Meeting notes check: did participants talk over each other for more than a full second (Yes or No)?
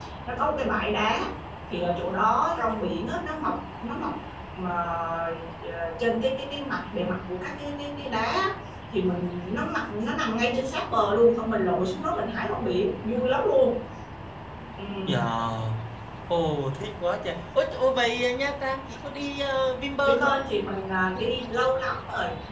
No